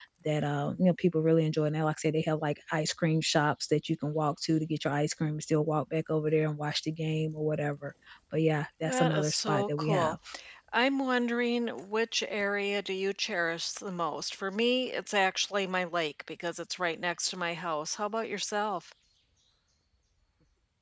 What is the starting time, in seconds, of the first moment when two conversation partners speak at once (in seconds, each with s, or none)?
8.8 s